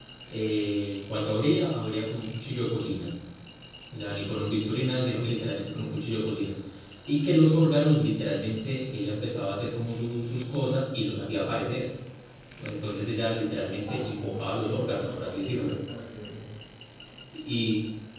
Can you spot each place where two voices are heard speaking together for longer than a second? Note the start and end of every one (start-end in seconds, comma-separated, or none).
13.8-15.8